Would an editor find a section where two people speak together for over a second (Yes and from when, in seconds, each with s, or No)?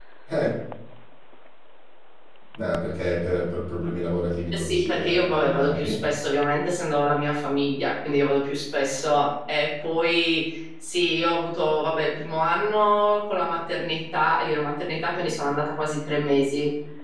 Yes, from 4.5 s